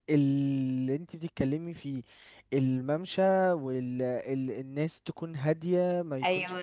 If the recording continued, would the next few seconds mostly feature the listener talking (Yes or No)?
No